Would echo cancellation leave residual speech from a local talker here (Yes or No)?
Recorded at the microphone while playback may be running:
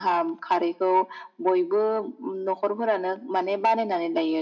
No